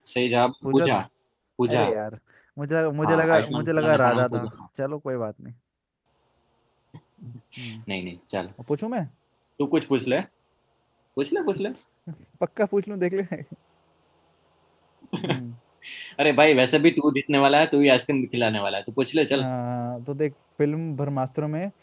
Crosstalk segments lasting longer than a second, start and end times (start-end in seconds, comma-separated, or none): 3.0-4.5